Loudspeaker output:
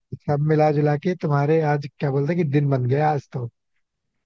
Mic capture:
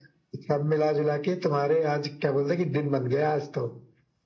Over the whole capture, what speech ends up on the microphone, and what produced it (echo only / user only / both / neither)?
echo only